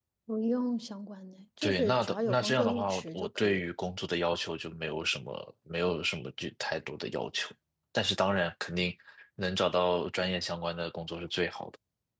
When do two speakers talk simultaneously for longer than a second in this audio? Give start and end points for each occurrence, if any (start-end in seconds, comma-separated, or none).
1.6-3.6